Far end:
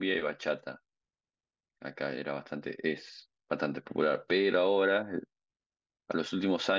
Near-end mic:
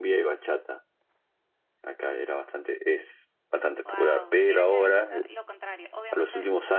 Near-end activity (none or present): present